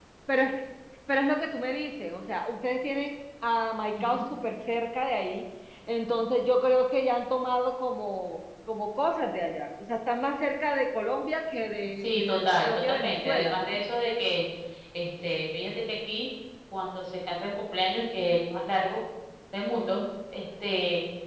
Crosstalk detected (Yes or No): Yes